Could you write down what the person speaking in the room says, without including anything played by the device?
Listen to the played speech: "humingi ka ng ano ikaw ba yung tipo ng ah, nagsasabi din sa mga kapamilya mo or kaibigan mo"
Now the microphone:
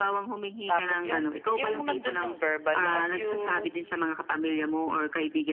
tapos yung yung nandun yung verbal abuse,

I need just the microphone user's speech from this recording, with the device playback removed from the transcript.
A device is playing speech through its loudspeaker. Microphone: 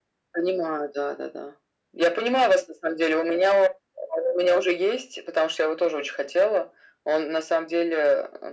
none

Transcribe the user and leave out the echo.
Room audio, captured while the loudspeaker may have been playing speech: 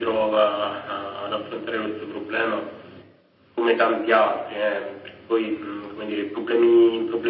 none

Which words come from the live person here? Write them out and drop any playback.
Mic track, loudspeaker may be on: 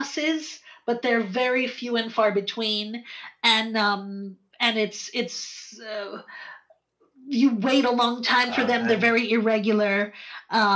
uh, and

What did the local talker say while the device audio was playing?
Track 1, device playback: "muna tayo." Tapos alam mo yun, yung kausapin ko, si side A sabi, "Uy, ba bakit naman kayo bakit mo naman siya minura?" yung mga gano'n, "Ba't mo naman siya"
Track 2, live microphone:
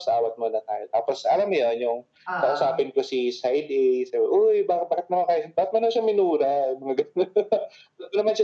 Oo.

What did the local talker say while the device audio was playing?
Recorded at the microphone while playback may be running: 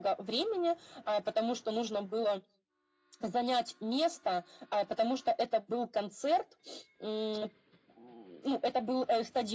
none

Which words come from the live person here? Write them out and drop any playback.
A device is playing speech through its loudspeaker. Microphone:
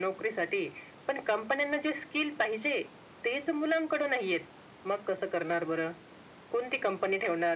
none

